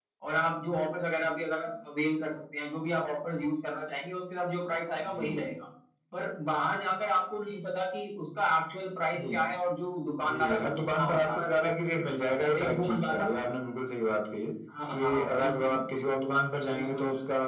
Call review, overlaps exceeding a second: present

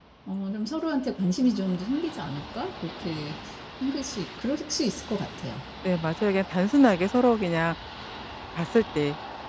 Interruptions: none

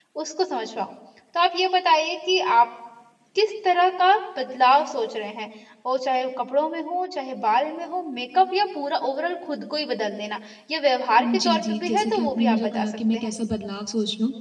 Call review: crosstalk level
present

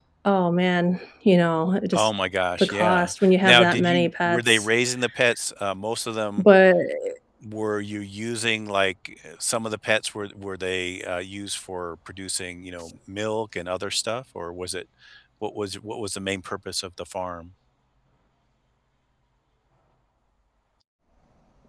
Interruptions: present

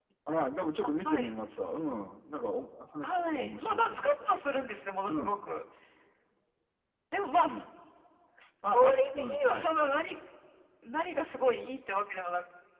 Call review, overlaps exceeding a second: present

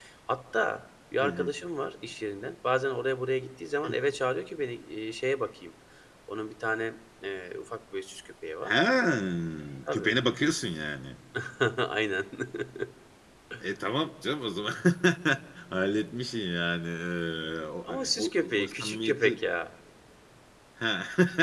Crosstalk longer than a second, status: present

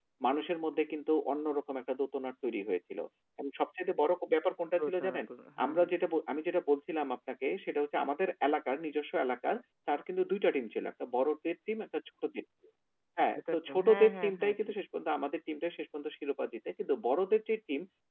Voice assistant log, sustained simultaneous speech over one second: present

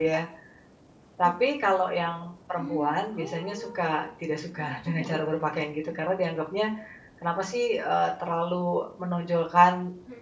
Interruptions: present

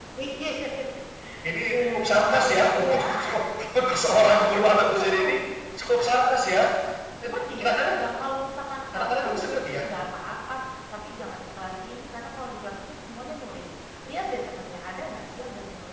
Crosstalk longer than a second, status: present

